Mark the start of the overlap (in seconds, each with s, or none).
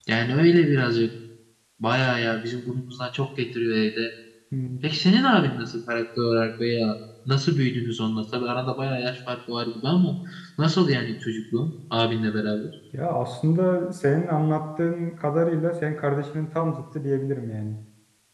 none